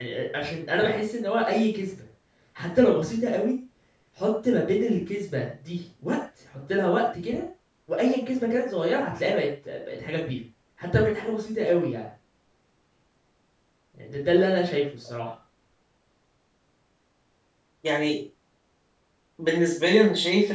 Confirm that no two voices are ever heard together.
Yes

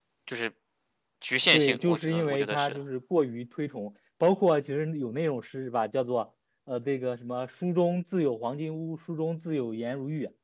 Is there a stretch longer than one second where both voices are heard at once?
Yes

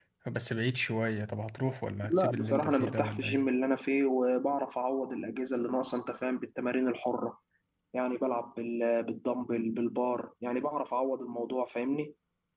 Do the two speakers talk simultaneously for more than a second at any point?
Yes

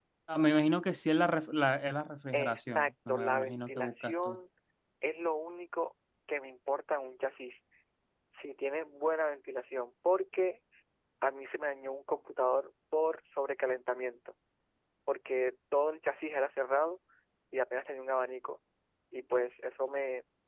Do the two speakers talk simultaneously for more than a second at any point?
Yes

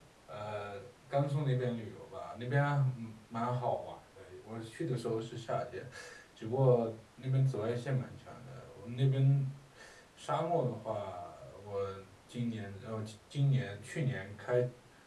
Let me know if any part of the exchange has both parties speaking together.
No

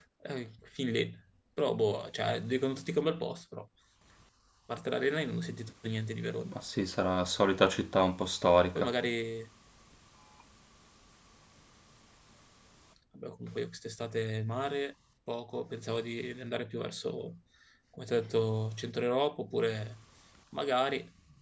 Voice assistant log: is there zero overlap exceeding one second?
Yes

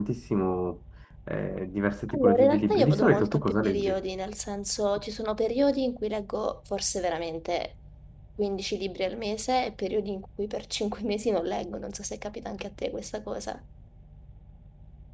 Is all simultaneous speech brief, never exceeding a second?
No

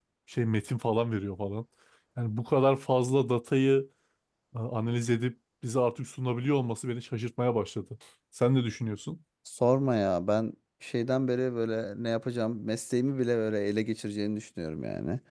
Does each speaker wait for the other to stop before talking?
Yes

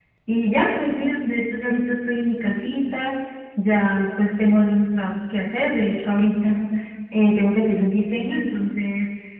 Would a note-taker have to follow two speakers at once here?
No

